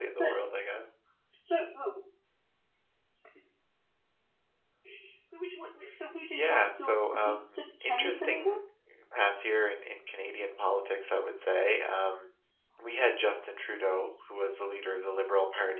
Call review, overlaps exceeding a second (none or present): present